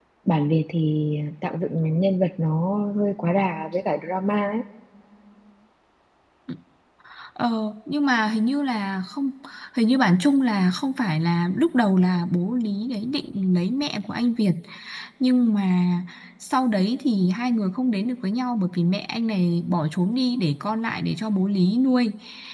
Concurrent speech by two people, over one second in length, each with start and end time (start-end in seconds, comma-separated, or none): none